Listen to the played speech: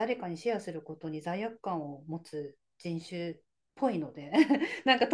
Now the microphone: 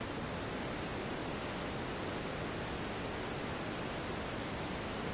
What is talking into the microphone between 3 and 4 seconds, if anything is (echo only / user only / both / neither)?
neither